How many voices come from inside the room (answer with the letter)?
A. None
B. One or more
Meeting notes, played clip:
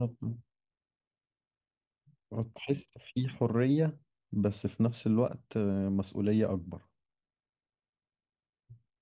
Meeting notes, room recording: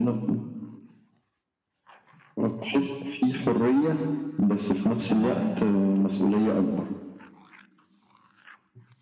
B